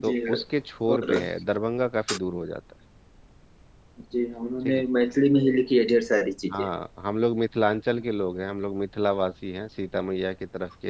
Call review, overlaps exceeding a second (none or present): none